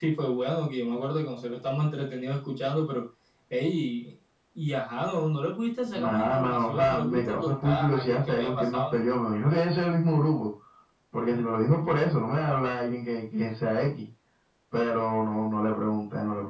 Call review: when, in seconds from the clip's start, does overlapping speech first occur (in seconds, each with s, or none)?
5.9 s